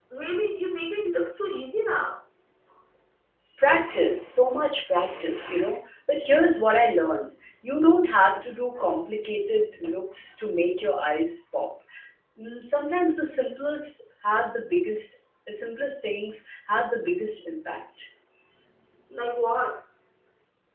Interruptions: none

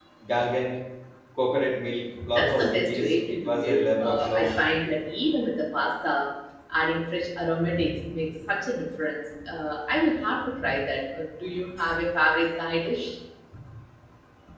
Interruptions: present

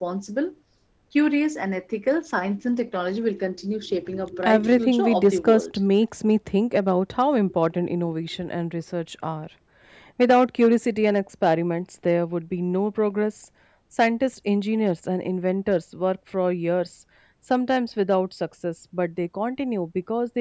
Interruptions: present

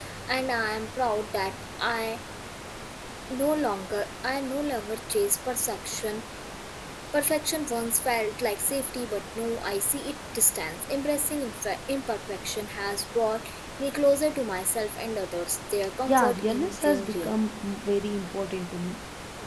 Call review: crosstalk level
present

